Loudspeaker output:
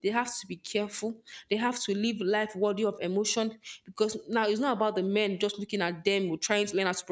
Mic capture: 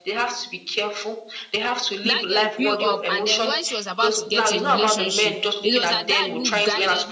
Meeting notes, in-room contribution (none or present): present